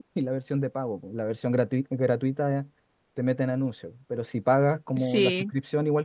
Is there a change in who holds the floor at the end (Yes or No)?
No